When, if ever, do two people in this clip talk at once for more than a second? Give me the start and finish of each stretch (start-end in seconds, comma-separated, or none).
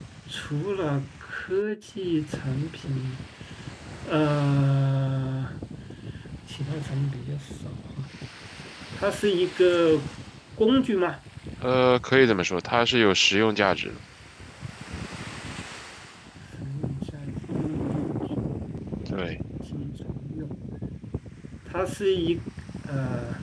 none